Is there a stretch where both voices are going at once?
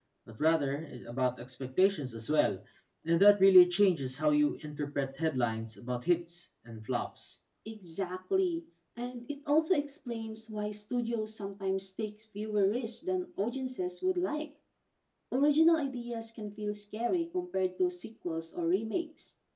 No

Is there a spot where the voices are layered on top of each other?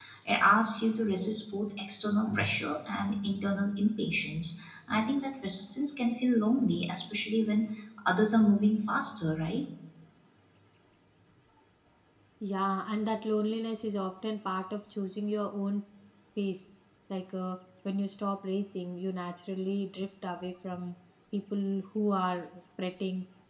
No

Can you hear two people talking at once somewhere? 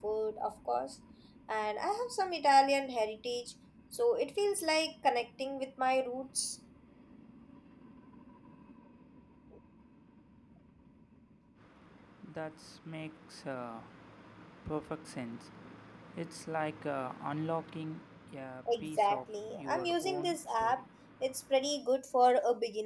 Yes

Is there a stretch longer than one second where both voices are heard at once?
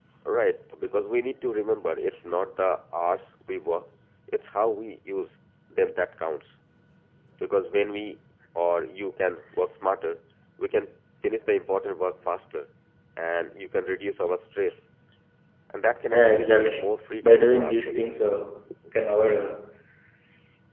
Yes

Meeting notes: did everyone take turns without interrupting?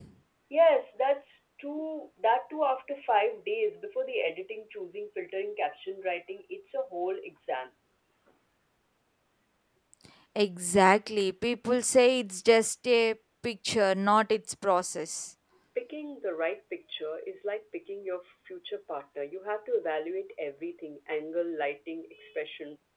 Yes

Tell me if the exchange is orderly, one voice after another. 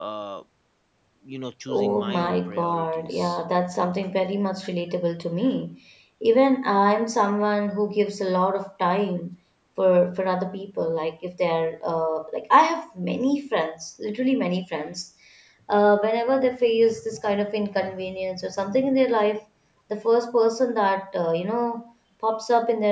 No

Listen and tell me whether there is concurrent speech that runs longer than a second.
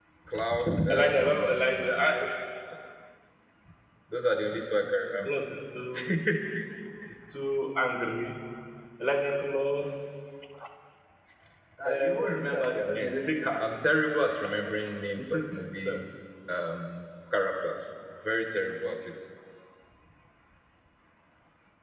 Yes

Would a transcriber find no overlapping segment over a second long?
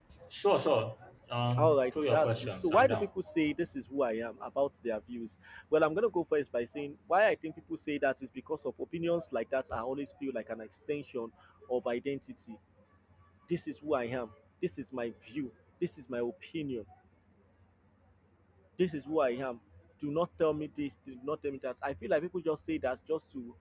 No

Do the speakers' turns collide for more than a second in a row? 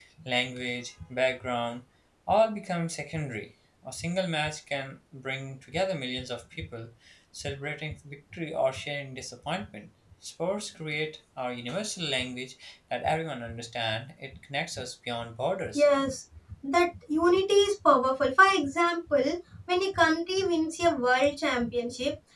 No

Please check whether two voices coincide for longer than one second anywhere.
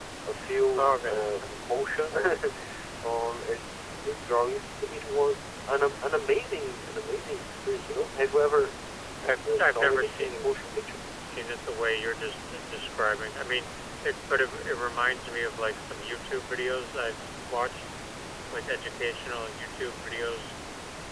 Yes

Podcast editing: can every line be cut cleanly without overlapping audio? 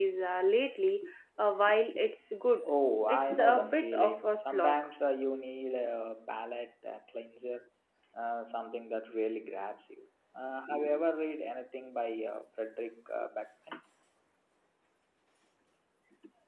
No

